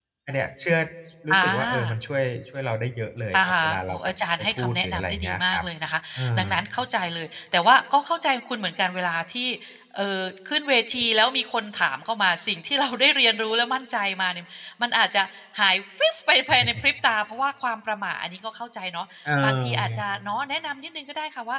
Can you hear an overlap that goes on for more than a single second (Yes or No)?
Yes